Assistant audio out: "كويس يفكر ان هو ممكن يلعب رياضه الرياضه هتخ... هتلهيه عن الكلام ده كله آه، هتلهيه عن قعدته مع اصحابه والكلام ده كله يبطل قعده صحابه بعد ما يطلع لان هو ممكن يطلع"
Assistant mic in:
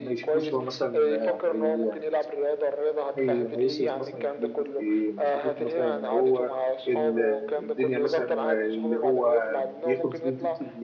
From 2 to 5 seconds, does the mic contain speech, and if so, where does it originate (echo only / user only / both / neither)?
both